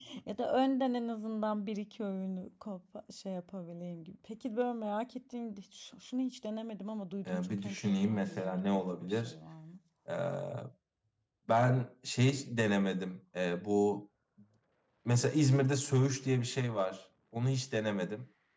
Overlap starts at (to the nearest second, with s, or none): 7 s